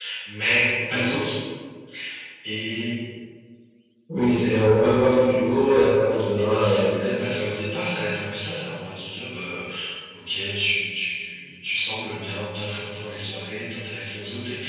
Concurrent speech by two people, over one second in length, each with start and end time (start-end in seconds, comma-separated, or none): 6.4-7.6